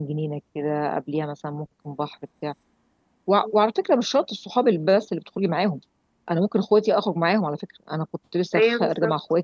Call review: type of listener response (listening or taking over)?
listening